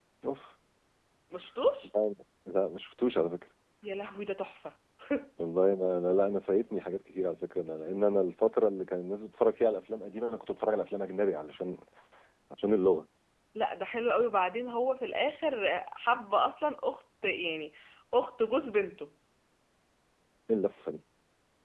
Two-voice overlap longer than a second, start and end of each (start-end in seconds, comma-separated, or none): none